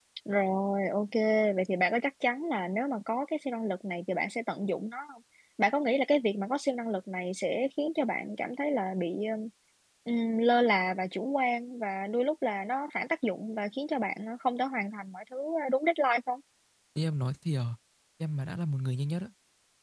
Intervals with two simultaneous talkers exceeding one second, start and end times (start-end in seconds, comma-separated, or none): none